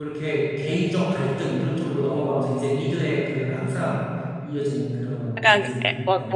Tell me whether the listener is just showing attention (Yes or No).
No